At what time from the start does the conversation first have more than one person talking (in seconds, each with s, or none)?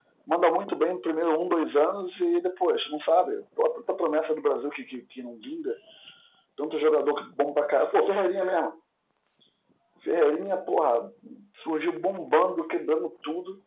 none